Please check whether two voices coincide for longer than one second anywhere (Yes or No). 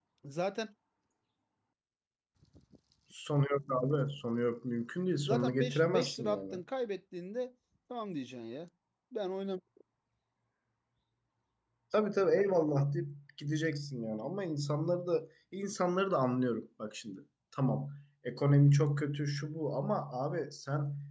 Yes